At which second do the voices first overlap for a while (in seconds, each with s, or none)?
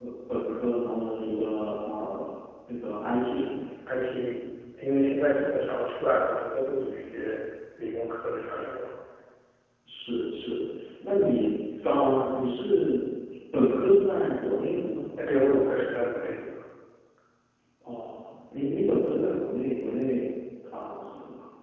none